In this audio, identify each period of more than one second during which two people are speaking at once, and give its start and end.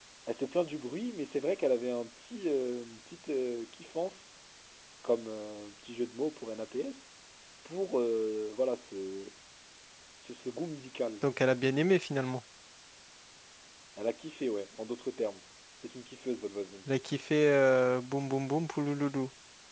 none

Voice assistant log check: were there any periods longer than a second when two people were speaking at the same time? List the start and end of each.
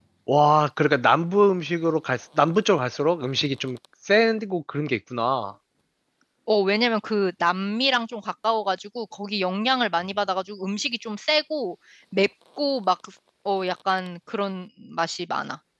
none

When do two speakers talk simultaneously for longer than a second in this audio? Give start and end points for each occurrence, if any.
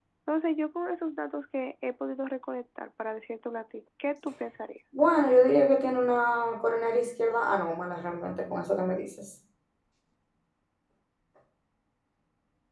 none

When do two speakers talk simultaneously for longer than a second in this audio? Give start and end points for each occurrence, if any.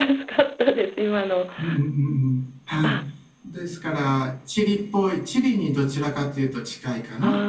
none

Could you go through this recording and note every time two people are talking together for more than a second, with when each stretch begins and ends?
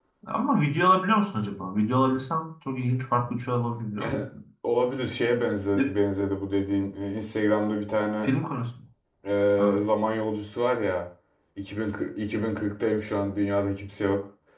none

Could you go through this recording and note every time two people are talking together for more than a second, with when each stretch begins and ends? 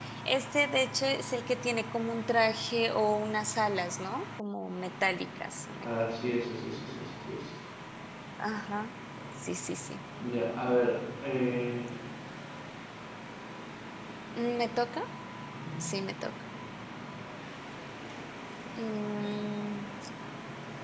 none

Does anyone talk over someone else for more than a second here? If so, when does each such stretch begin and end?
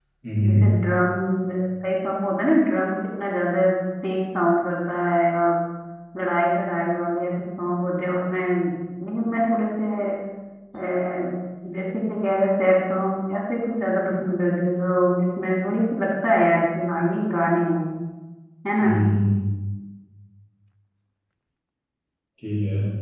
none

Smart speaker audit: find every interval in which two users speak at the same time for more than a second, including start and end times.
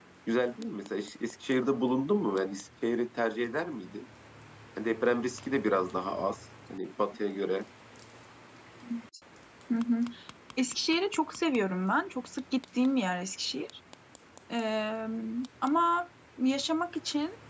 none

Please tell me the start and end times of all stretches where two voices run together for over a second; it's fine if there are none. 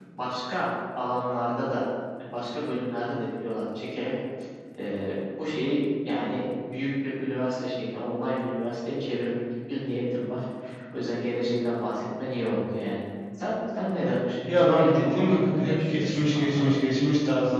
14.5-16.7

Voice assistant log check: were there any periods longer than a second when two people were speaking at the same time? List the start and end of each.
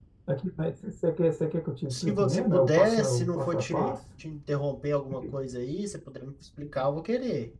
1.9-4.0

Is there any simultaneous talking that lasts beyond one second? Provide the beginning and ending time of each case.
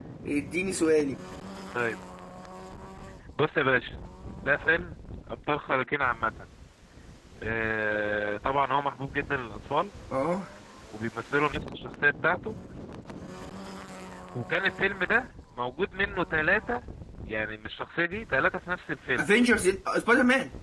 none

